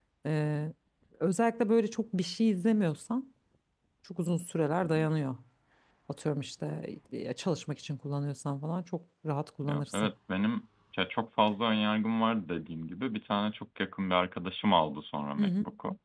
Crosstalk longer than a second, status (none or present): none